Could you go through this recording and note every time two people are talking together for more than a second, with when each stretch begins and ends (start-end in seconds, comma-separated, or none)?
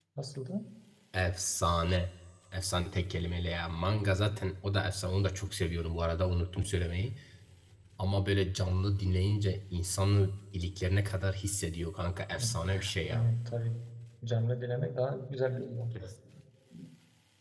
none